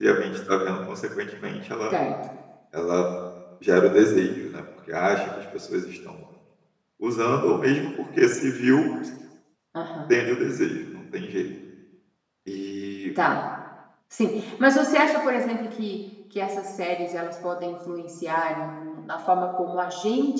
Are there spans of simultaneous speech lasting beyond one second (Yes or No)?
No